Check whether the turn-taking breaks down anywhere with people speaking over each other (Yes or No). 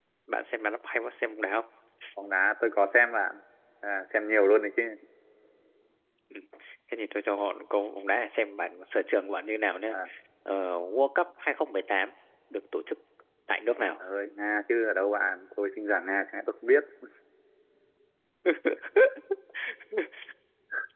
No